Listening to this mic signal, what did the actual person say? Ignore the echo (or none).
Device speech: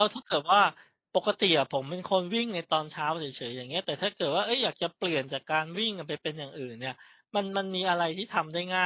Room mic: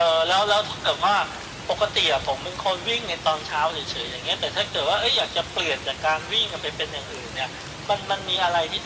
none